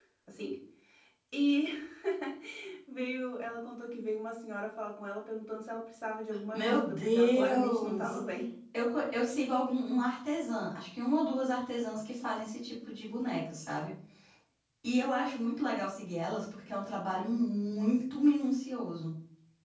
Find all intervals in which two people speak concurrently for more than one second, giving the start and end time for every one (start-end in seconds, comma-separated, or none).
6.5-8.2